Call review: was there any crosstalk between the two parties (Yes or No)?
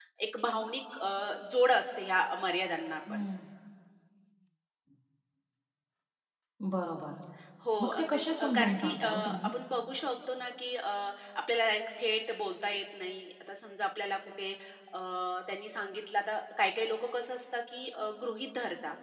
Yes